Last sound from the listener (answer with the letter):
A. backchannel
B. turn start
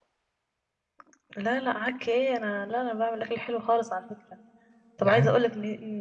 A